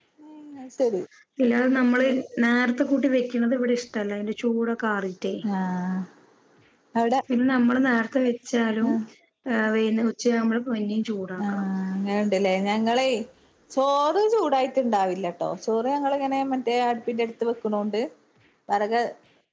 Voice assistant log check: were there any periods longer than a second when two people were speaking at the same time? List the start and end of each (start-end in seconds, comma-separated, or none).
none